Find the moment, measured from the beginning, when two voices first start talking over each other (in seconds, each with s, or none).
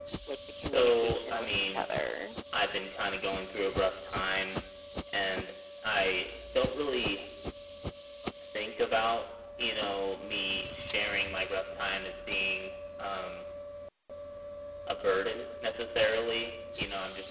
0.6 s